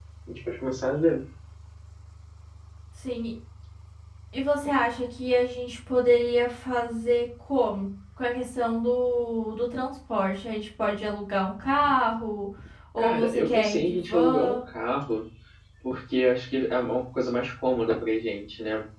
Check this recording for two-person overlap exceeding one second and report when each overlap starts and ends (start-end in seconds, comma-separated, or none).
13.0-14.6